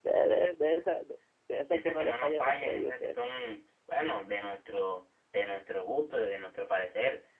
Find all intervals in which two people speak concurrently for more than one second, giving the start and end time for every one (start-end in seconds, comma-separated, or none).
1.7-3.2